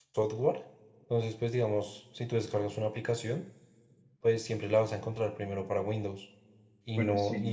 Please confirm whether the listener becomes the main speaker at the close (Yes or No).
No